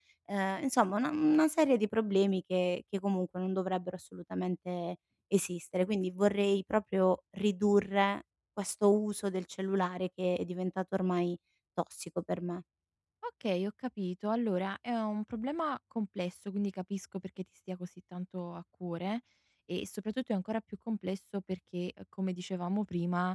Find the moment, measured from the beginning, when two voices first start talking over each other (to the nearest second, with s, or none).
none